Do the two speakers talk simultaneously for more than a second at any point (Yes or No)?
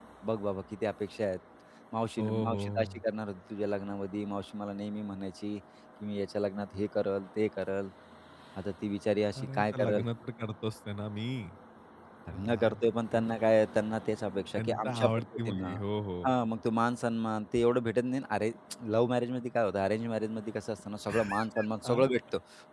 Yes